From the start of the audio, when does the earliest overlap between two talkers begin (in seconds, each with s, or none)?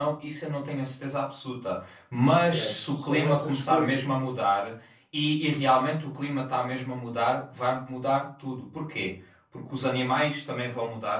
2.3 s